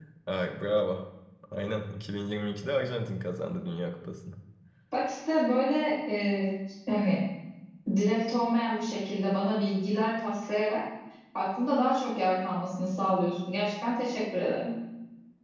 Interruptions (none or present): none